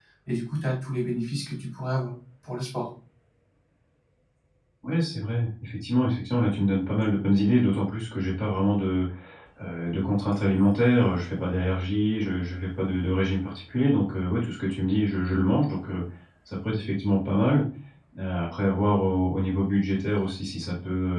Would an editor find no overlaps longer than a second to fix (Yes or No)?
Yes